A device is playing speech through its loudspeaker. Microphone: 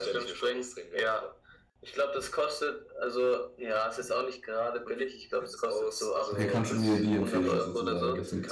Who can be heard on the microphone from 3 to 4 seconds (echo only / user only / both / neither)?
echo only